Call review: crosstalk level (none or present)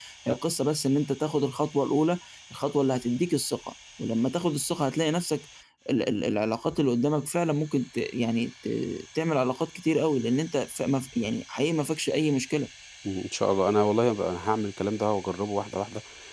none